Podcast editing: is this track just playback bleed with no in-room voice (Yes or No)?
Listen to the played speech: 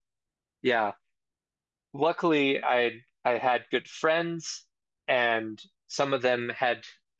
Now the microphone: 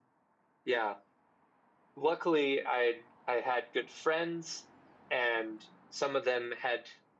Yes